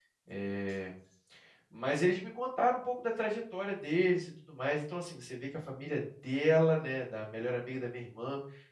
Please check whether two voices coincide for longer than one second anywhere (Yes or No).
No